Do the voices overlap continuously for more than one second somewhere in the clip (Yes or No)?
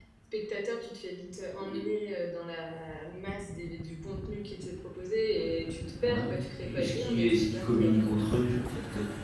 Yes